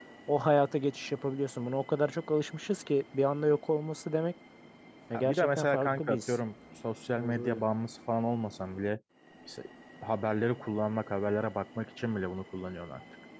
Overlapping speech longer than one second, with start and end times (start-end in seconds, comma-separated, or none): 5.1-6.3